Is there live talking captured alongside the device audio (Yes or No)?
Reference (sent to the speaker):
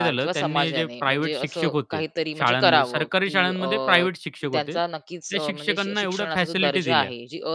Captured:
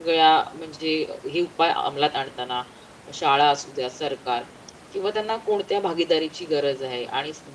Yes